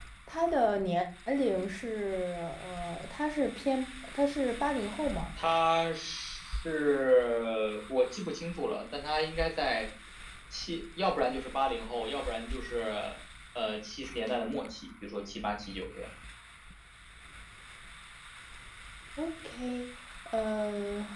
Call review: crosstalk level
none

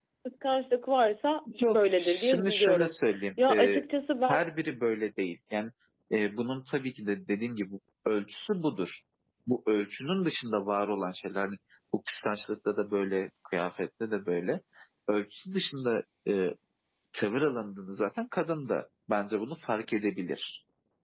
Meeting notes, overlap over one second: present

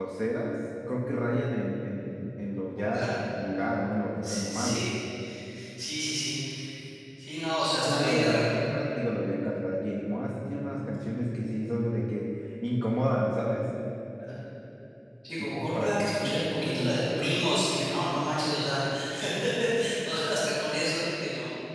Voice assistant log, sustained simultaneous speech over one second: present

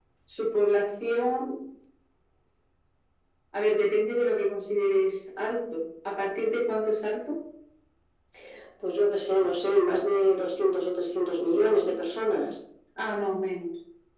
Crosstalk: none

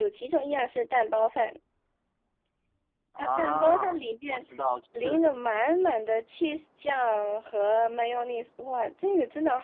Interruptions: present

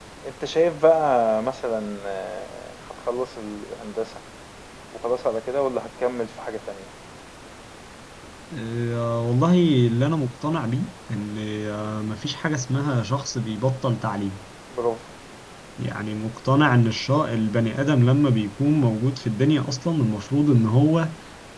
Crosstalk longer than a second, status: none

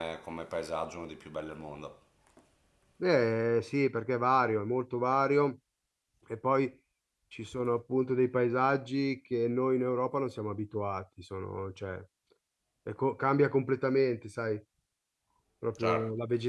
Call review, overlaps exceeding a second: none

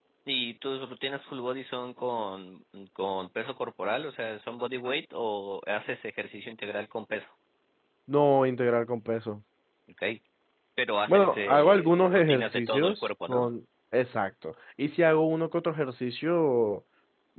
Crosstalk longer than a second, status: present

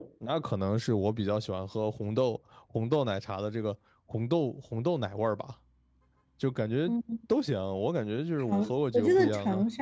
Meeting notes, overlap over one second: present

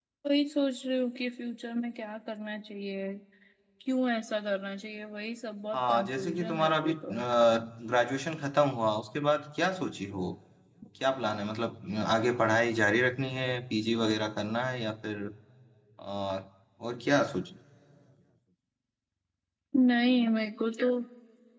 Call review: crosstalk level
present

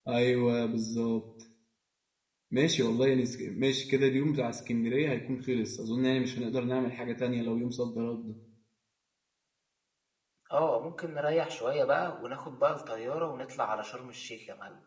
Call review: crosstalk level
none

